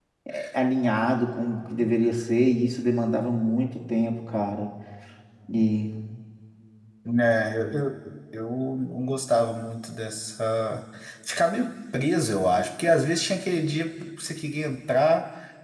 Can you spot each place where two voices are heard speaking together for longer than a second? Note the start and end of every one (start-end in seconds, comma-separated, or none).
none